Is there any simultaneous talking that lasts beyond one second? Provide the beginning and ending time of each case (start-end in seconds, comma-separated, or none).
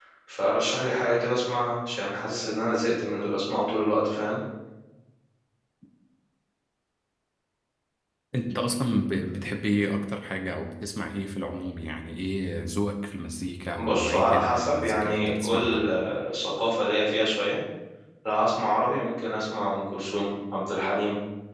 13.8-15.8